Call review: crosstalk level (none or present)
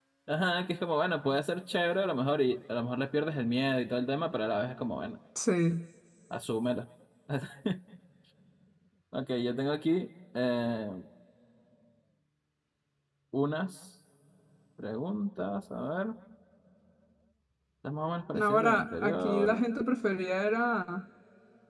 present